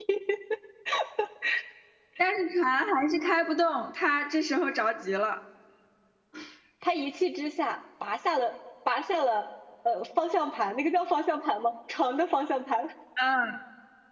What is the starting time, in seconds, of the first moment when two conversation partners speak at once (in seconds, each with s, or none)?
none